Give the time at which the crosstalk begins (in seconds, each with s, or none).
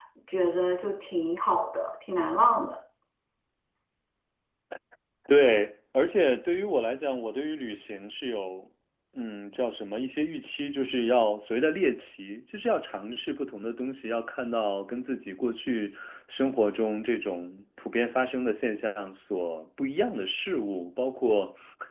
none